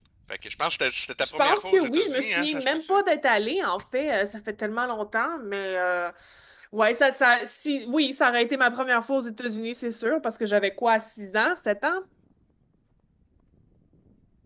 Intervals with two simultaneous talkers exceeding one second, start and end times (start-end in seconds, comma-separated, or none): 1.2-2.9